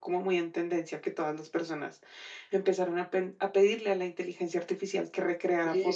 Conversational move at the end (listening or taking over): taking over